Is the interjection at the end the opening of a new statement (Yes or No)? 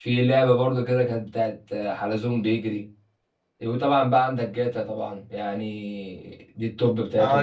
Yes